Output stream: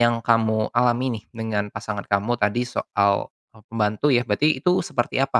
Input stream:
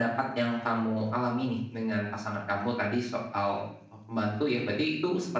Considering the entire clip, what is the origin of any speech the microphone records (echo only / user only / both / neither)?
echo only